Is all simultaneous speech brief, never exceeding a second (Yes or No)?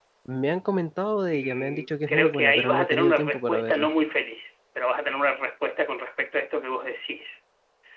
No